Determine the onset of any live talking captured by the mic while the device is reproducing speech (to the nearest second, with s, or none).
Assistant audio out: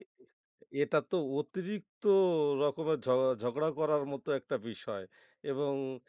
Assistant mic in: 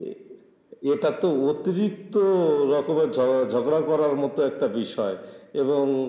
none